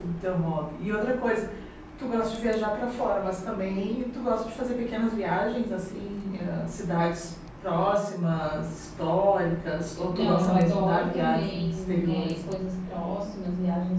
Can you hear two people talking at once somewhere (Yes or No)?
Yes